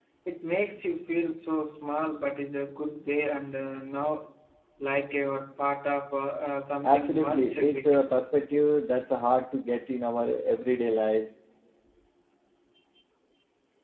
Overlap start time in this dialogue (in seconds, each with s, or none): 6.8 s